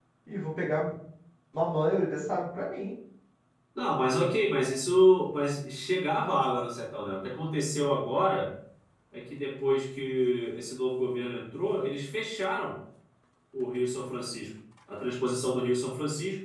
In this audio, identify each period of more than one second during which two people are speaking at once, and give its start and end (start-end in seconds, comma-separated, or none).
none